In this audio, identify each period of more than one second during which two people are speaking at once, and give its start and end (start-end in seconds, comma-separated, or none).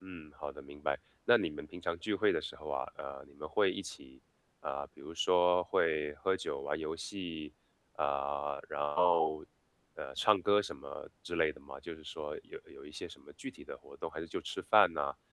none